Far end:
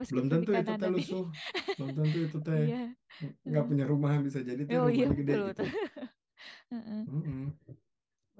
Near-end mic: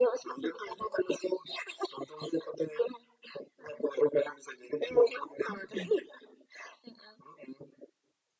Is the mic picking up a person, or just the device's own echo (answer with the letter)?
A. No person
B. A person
B